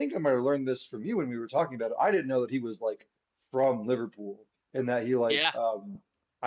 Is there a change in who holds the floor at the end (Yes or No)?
No